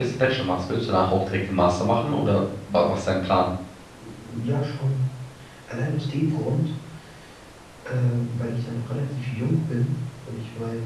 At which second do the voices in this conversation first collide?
none

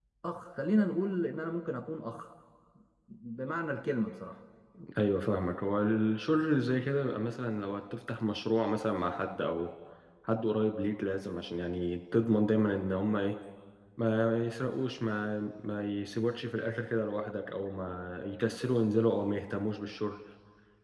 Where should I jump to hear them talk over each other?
none

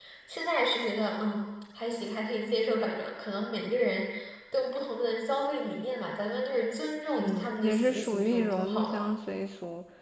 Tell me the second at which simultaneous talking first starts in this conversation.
7.2 s

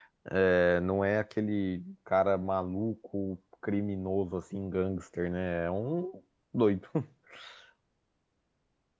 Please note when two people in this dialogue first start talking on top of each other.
none

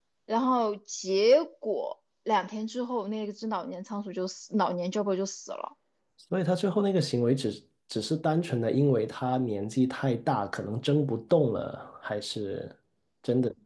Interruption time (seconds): none

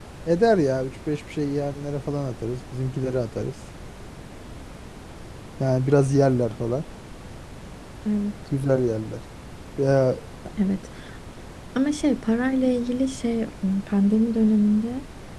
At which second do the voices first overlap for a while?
none

